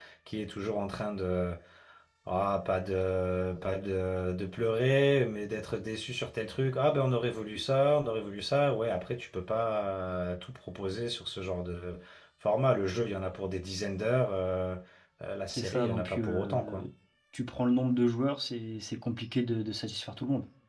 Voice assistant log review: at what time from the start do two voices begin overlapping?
15.6 s

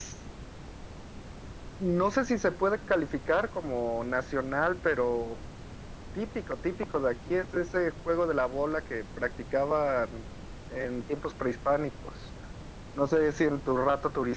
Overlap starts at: none

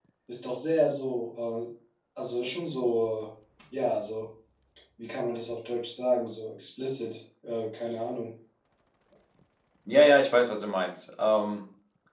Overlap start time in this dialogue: none

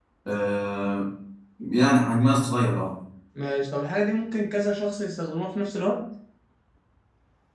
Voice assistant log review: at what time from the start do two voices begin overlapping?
none

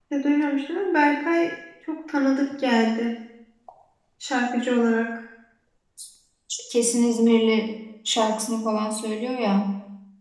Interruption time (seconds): none

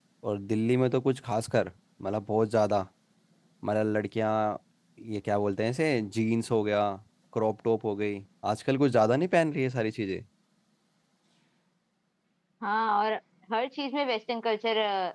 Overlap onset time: none

